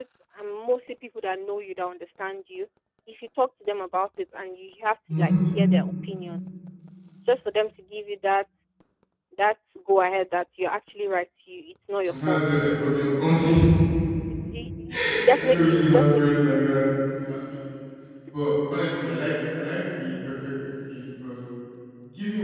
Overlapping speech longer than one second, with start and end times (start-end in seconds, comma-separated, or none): 14.9-16.2